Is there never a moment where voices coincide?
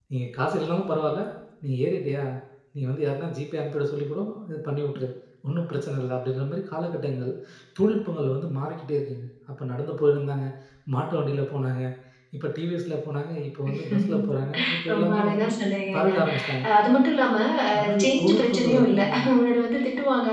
No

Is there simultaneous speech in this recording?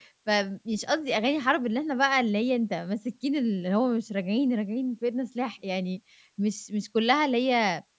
No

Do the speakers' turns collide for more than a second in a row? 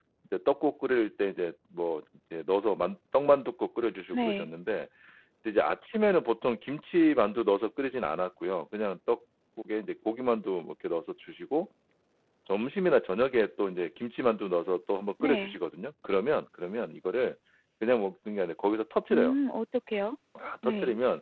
No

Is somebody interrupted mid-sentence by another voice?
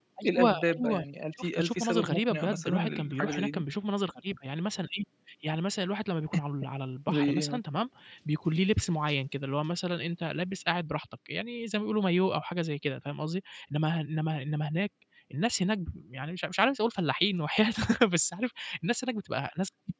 Yes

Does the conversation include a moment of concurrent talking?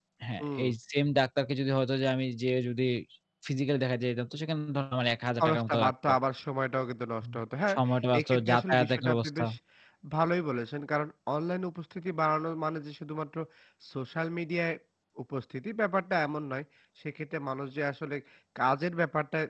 Yes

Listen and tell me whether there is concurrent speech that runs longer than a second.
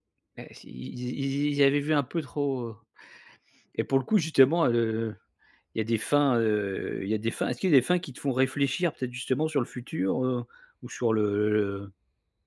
No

